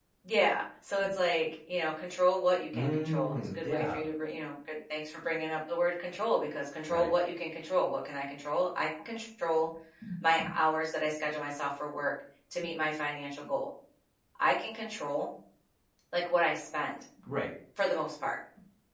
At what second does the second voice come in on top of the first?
2.7 s

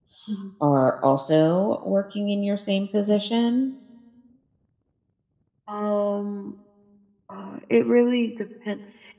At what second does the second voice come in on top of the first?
none

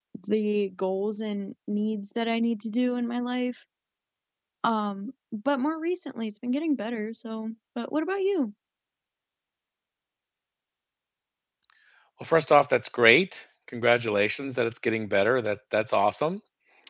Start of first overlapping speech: none

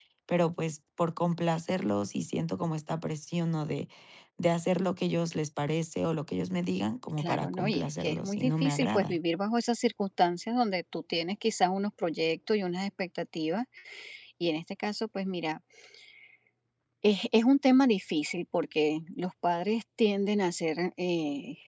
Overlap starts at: 7.2 s

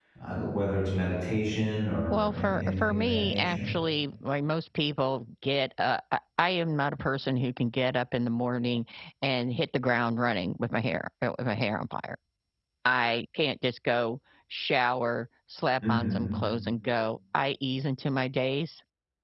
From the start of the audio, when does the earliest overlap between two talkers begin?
2.1 s

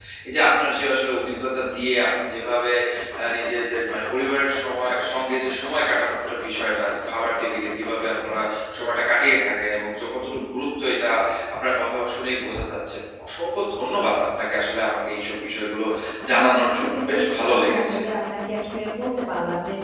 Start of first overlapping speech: 16.4 s

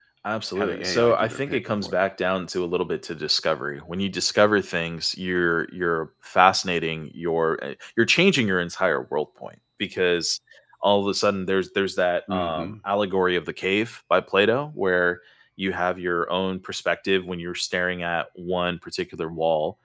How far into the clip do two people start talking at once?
0.6 s

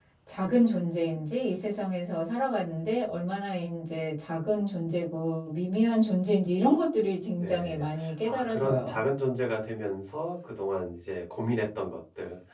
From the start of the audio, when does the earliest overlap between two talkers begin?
7.4 s

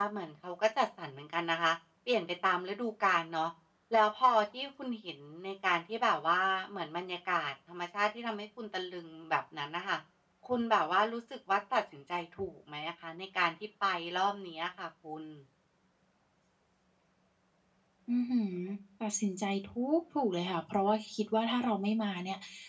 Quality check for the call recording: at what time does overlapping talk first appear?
none

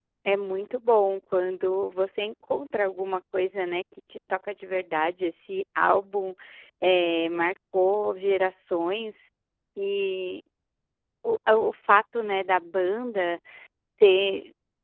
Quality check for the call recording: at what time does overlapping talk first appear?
none

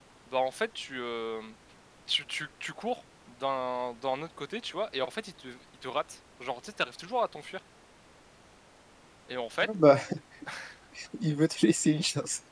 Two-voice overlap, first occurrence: none

